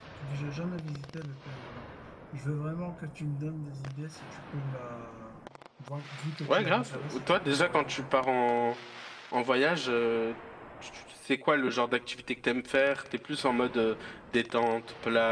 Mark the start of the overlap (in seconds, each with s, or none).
6.4 s